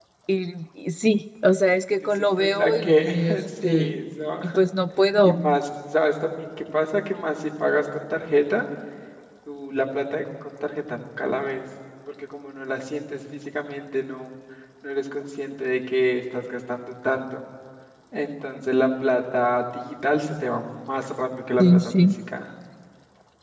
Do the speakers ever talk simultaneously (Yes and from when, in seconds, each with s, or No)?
Yes, from 1.9 s